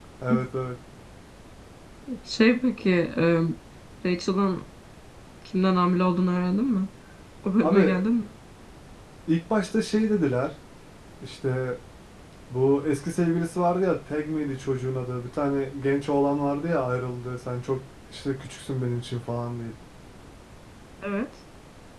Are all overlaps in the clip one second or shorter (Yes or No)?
Yes